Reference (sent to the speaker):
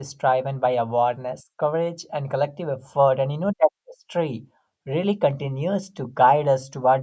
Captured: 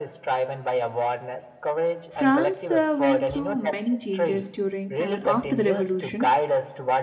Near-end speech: present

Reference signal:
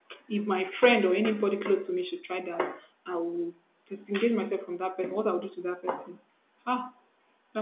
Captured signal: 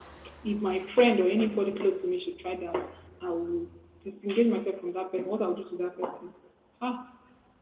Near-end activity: none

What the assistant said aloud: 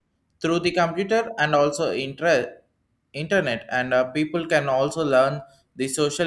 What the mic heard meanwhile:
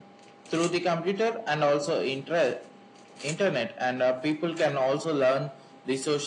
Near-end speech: none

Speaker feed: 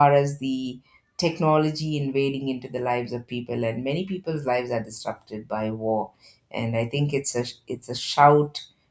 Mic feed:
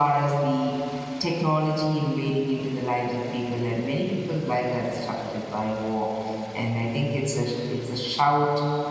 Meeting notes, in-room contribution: none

